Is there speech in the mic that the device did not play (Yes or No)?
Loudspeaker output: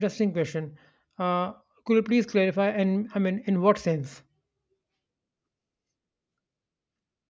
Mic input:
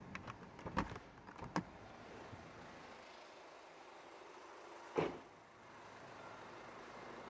No